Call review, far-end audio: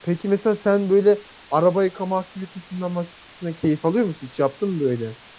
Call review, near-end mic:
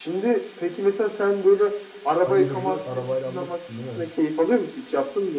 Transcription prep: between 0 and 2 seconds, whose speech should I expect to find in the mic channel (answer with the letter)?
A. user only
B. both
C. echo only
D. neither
C